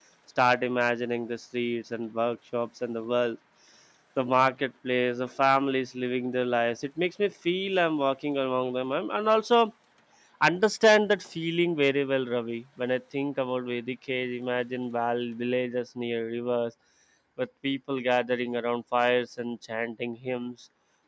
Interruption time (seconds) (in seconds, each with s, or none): none